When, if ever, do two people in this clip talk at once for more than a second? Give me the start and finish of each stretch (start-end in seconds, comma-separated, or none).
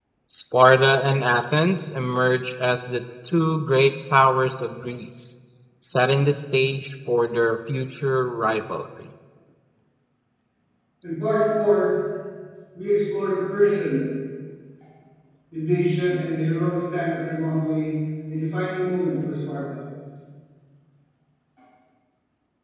none